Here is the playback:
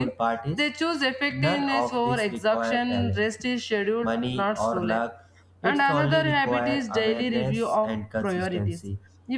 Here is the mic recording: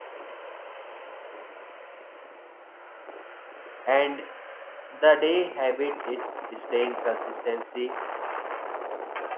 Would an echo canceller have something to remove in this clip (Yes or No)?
No